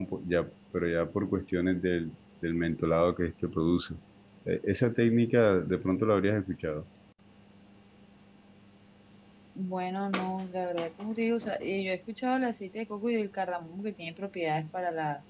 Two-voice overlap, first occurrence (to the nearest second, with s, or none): none